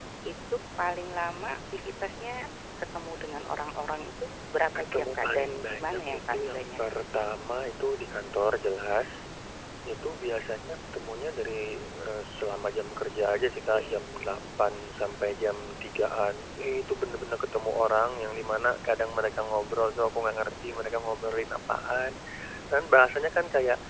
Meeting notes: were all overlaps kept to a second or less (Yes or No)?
No